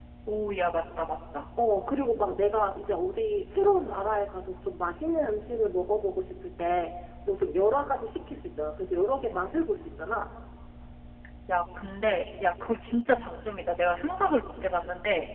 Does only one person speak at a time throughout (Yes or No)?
Yes